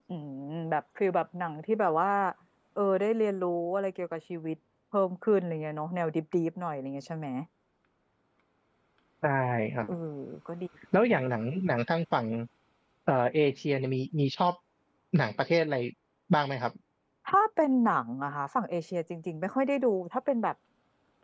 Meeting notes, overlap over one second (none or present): none